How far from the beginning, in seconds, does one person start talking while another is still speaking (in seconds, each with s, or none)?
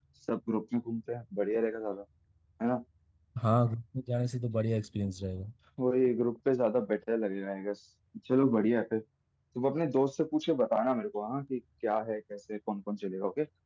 none